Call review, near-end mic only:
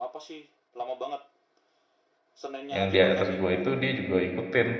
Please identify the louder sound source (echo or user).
user